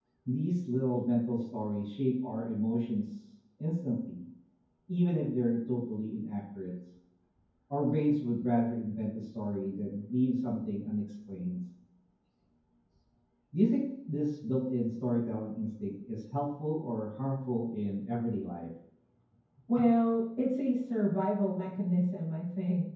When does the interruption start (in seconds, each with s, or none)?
none